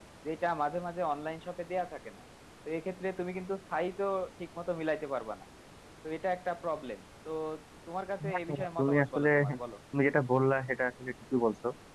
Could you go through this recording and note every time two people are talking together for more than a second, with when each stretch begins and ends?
8.3-9.6

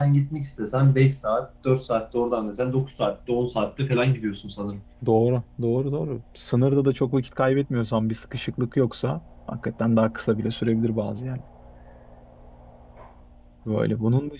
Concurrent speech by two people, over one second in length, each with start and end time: none

